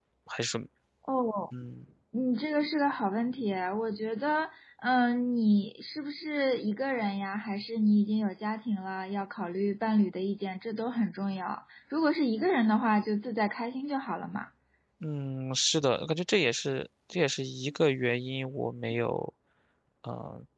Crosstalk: none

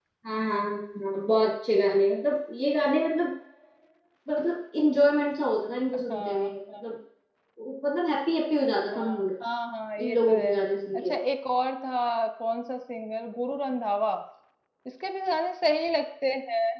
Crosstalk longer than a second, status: none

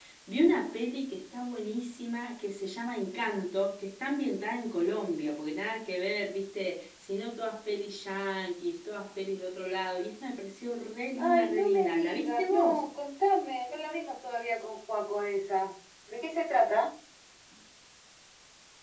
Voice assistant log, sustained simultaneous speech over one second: present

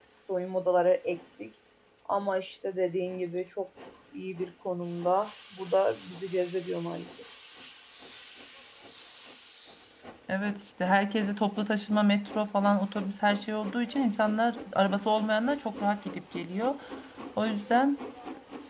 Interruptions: none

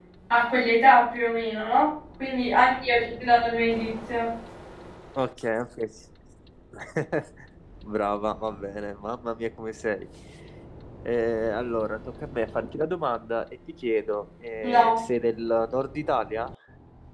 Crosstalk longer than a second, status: none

